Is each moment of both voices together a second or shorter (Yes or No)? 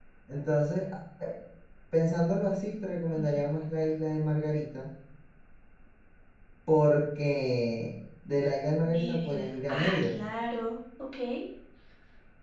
No